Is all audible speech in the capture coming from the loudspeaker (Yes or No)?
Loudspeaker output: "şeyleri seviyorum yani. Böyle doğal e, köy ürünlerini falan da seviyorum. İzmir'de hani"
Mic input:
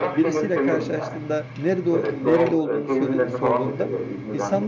No